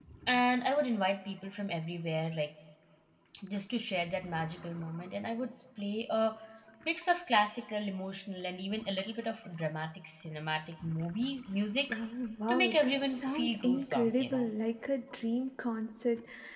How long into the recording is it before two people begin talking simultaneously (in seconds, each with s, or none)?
12.5 s